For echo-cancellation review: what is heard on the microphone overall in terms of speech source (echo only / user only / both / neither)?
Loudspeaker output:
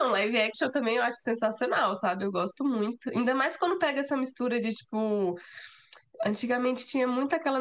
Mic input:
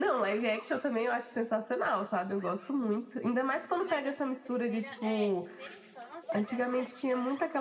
both